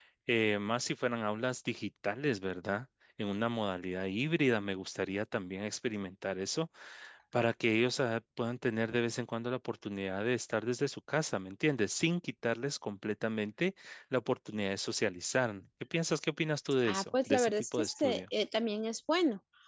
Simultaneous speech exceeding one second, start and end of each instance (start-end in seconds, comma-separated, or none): 16.8-18.2